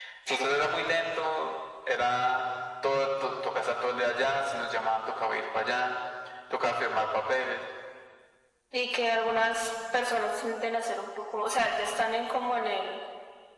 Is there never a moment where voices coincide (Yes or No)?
Yes